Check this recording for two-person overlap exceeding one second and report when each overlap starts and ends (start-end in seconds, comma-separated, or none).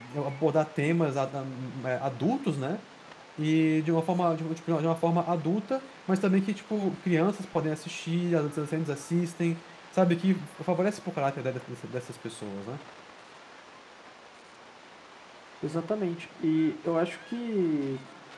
none